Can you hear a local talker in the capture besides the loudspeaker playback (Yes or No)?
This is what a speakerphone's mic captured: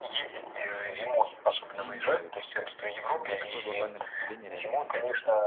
Yes